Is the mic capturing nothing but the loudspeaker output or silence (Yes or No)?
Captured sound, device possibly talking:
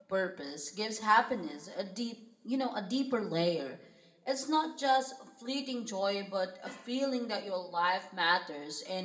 No